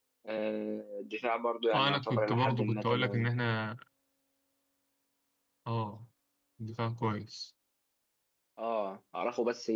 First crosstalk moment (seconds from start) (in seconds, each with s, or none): 1.7 s